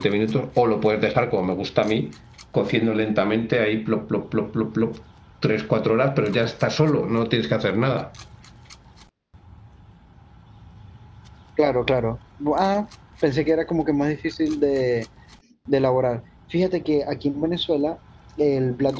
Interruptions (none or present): none